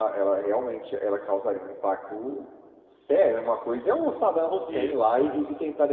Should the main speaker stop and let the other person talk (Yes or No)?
No